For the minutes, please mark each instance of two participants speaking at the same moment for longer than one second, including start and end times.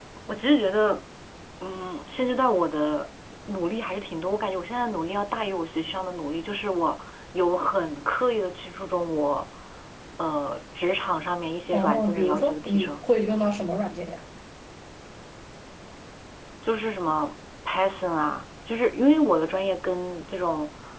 11.7-13.0

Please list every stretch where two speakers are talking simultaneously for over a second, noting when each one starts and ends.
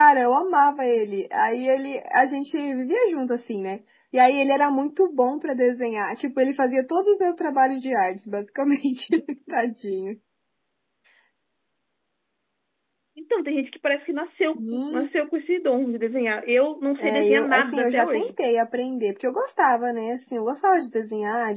17.0-18.3

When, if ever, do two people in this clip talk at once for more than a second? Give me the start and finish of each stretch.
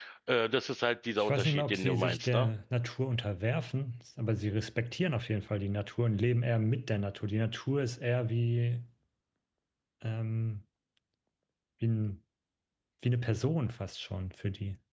1.2-2.5

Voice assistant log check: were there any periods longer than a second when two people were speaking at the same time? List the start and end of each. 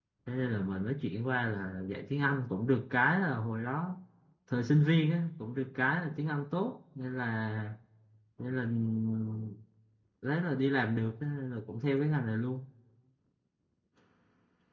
none

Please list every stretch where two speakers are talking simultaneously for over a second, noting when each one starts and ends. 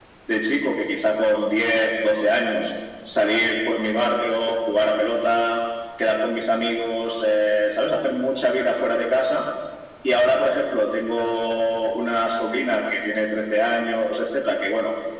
none

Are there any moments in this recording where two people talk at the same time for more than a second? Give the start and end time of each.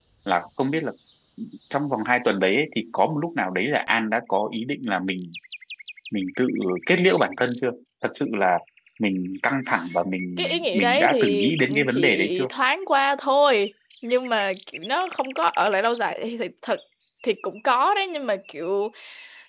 10.4-12.5

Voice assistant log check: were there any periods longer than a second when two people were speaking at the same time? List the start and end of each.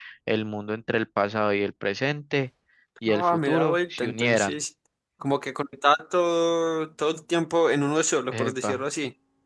3.1-4.5

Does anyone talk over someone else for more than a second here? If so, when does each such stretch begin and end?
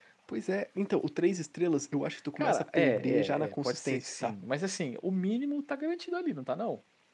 2.4-4.3

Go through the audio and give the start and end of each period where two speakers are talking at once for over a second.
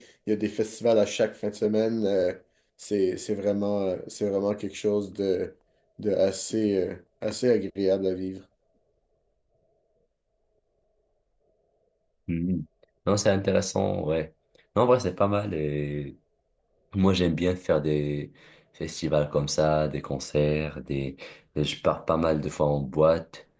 none

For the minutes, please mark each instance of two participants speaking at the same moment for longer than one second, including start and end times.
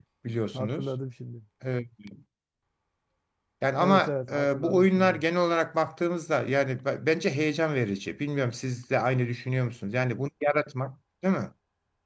3.8-5.2

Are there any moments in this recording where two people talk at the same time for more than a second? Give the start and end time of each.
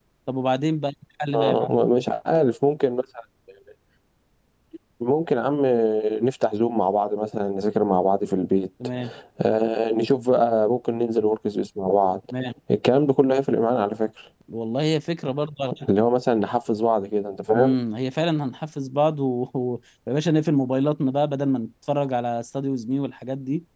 none

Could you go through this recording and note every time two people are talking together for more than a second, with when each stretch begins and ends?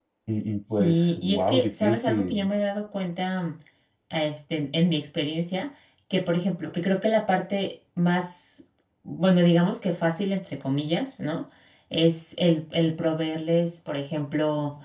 0.8-2.5

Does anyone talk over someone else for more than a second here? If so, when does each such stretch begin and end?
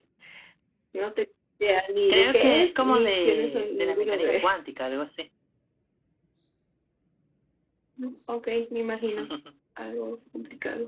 2.1-4.5

